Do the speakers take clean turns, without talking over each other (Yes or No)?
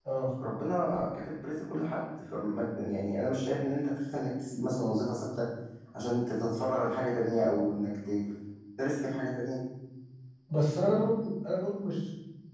Yes